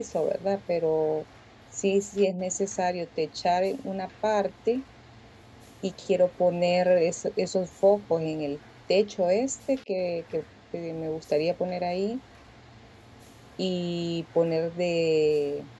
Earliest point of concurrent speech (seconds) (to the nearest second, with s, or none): none